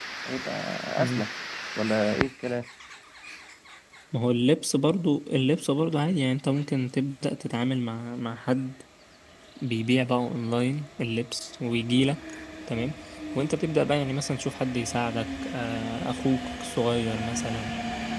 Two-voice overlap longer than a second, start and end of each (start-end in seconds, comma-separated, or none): none